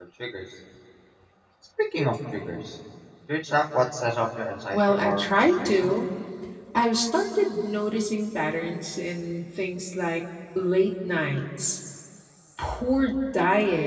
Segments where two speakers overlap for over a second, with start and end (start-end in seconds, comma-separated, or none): 4.7-6.0